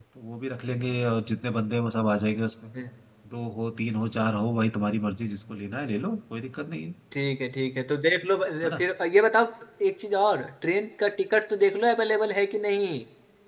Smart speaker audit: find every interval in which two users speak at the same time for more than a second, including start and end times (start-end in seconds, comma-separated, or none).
none